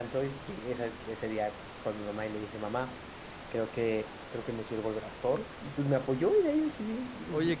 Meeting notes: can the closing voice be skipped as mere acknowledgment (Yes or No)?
No